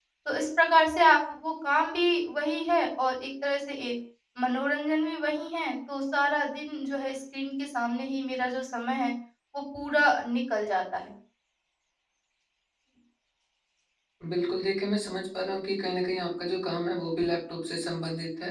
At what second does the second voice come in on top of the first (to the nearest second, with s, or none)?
none